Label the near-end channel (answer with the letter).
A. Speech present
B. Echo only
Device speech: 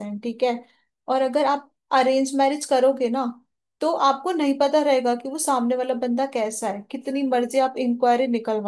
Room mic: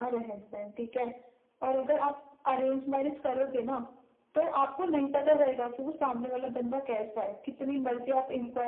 B